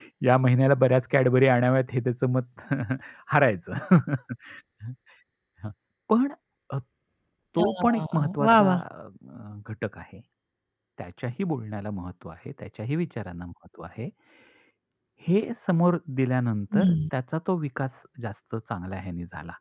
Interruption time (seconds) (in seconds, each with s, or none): 7.6 s